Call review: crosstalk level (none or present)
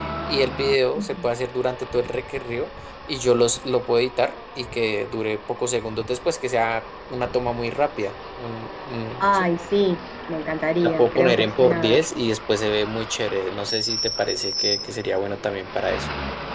present